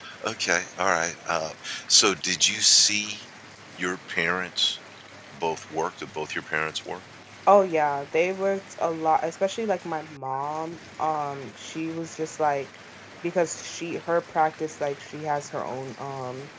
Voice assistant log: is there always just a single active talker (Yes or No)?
Yes